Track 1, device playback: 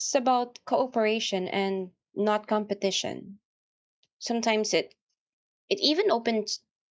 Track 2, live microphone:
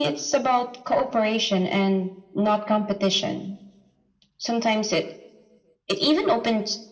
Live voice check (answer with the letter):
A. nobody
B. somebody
A